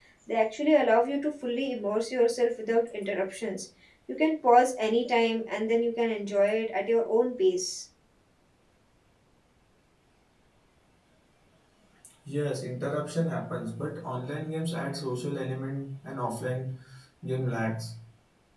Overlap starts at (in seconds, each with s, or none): none